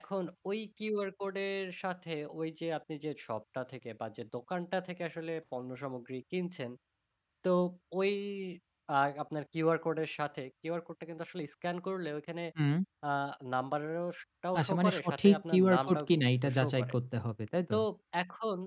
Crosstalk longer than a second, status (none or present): present